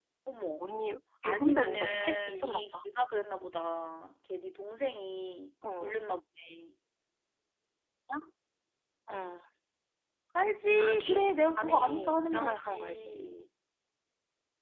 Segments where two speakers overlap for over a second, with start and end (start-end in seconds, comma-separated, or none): 1.2-2.7, 11.6-13.1